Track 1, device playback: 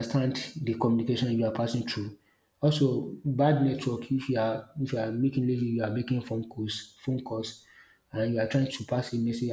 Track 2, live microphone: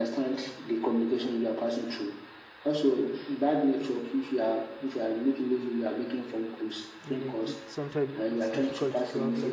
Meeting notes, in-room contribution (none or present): present